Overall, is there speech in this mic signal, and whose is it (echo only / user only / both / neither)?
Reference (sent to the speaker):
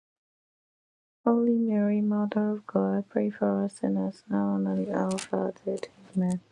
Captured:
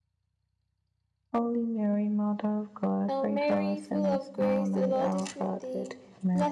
both